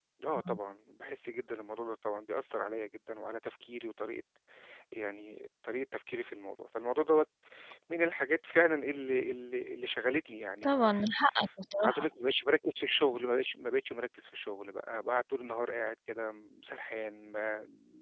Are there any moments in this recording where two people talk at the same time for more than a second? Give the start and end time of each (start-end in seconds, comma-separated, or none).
none